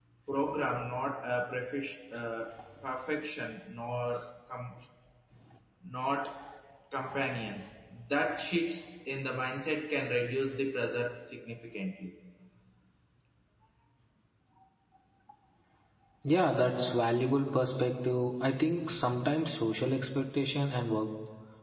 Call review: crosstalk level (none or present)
none